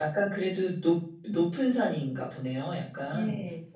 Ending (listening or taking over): taking over